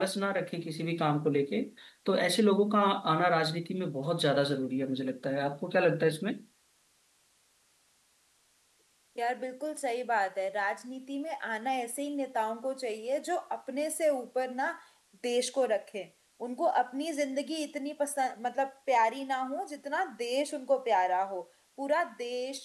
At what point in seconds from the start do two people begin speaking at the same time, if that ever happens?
none

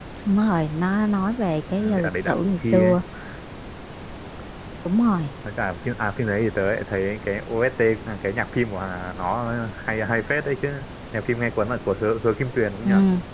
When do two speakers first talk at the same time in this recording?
1.7 s

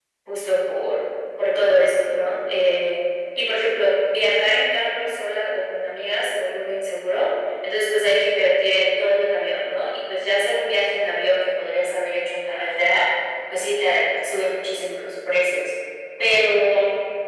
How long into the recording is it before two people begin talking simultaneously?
none

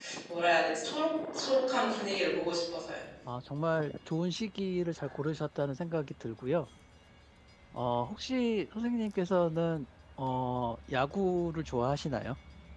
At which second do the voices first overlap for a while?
none

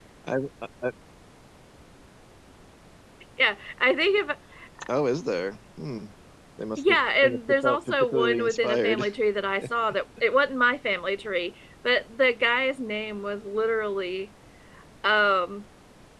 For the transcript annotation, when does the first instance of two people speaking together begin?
6.8 s

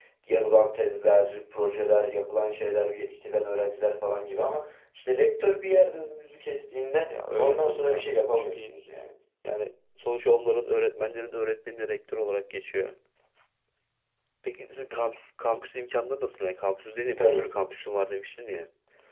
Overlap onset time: 7.1 s

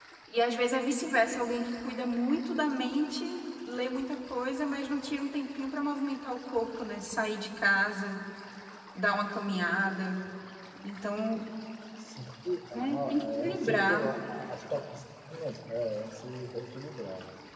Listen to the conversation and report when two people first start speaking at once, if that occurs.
12.7 s

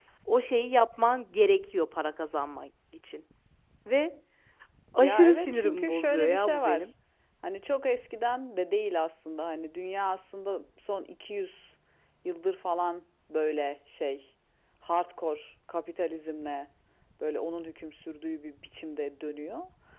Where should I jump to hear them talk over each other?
5.0 s

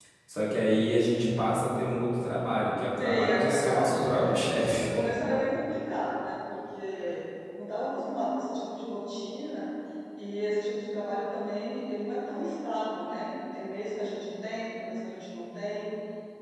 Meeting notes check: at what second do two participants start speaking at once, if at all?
3.0 s

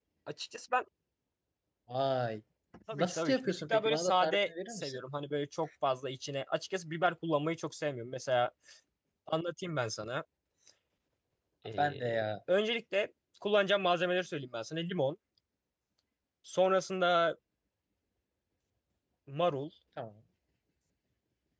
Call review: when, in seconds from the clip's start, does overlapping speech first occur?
2.9 s

